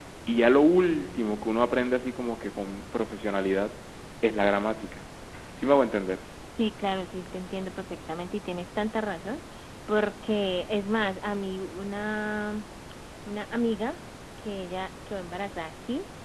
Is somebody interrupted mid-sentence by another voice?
No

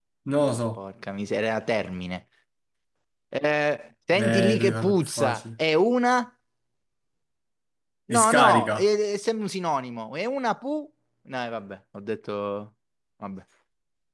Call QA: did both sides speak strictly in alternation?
No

